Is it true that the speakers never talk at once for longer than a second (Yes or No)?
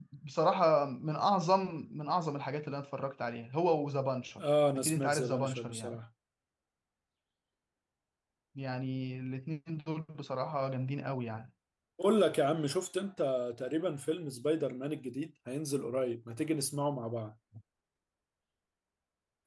No